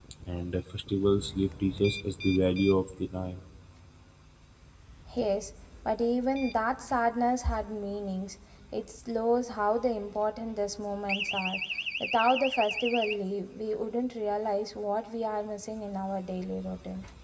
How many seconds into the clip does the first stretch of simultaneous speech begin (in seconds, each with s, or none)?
none